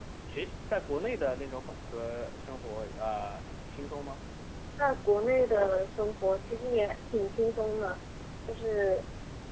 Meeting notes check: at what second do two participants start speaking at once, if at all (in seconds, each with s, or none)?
none